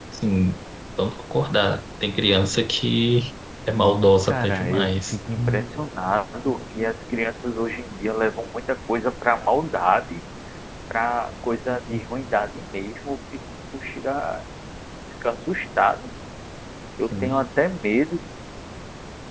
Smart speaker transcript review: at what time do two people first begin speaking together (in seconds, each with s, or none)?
3.8 s